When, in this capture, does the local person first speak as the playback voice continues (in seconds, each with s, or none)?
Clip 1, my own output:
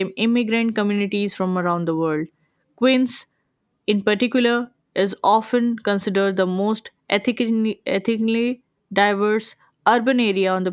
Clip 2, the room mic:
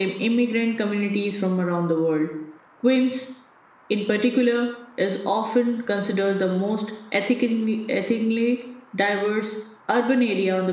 none